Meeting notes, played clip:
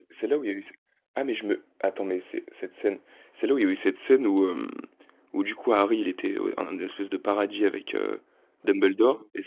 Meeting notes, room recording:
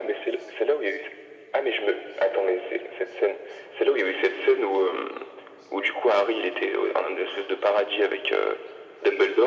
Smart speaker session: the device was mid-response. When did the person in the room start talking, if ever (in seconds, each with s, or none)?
none